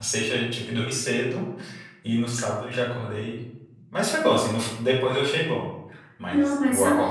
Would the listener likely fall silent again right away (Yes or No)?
No